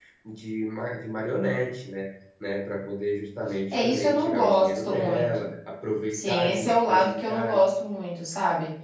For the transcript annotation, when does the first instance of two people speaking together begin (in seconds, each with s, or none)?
3.7 s